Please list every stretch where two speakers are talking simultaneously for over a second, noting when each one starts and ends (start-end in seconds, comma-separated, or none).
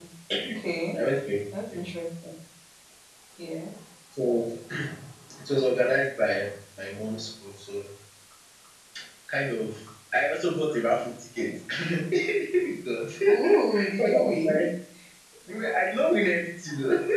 13.3-14.7